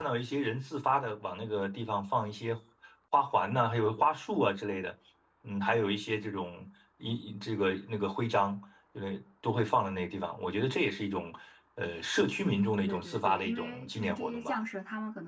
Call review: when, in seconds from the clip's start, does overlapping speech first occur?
13 s

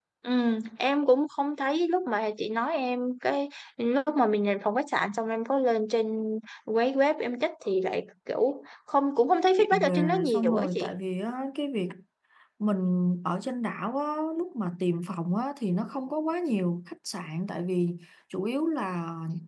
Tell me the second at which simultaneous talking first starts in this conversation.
10 s

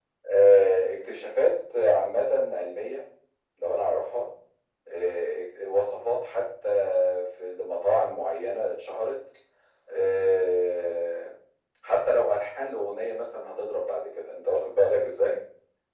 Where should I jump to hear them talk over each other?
none

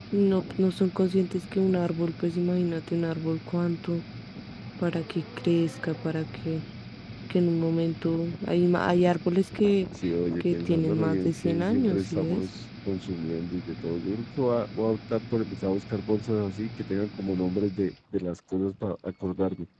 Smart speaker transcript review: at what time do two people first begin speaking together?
10 s

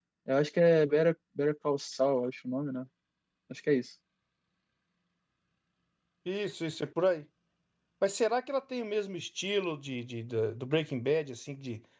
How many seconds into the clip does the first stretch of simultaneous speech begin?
none

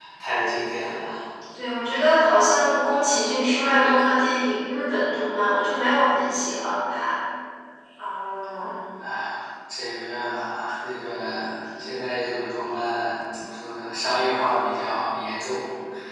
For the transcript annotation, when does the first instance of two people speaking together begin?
none

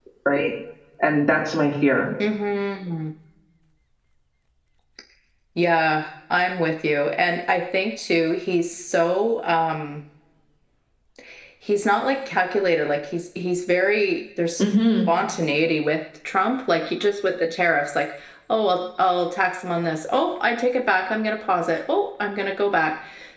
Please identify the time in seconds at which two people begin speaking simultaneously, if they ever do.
none

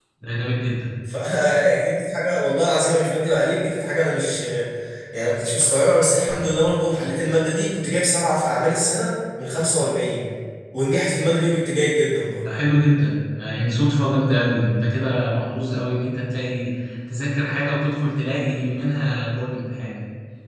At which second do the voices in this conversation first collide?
none

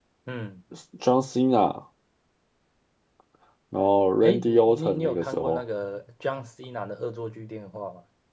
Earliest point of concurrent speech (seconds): 4 s

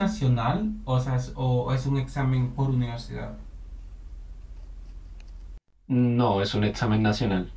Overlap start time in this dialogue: none

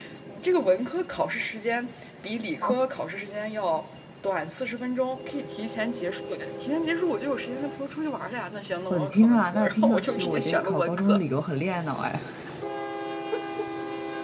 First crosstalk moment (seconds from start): 9 s

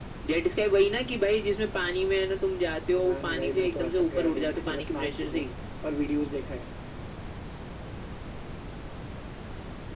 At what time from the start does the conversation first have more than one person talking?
3 s

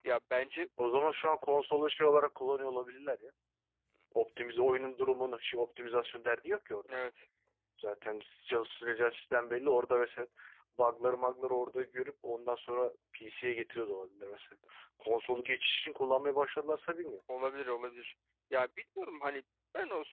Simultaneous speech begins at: none

